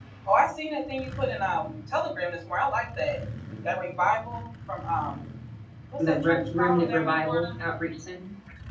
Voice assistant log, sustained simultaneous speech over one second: present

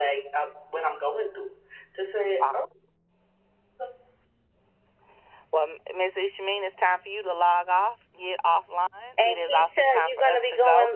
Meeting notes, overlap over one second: present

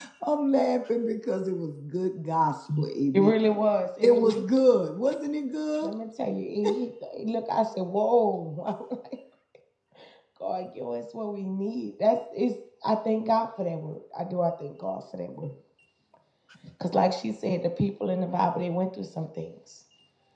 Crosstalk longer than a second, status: none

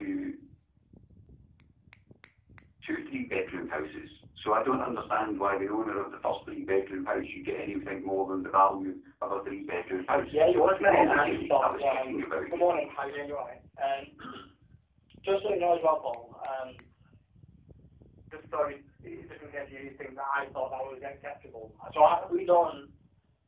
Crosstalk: present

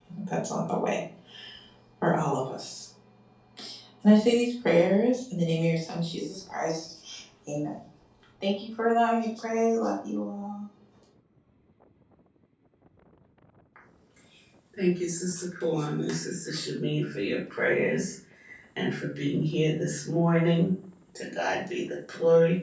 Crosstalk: none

